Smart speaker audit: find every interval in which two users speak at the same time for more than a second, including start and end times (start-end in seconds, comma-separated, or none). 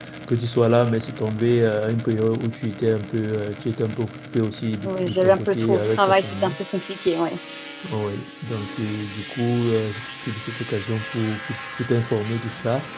4.8-6.5